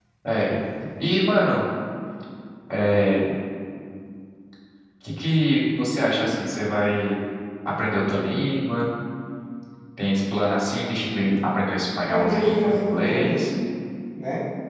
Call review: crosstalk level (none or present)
present